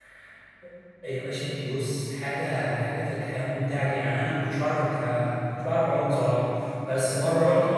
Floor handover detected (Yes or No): No